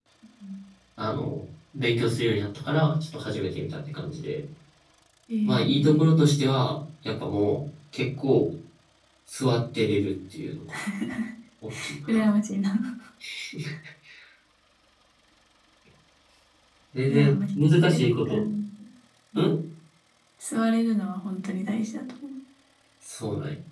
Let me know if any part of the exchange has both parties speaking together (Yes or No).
Yes